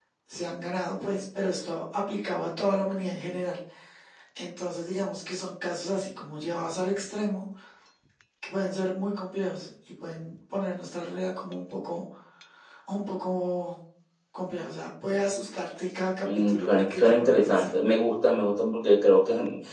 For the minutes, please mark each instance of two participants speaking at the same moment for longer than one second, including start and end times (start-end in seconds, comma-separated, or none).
16.2-17.7